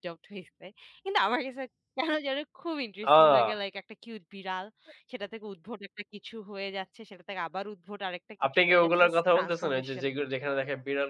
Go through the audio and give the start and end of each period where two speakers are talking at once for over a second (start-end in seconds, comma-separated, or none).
8.5-10.1